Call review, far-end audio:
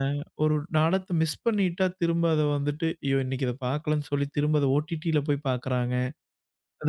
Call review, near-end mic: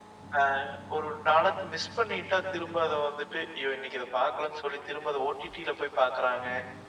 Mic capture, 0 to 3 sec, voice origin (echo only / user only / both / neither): echo only